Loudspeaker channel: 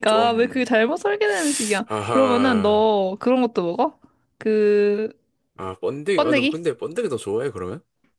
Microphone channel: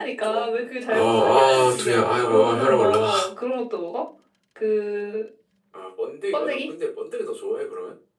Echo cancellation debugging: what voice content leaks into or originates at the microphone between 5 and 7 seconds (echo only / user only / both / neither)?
echo only